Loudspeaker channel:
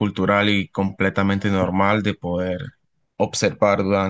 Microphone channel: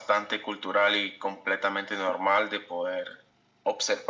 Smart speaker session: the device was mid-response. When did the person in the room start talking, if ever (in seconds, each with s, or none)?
none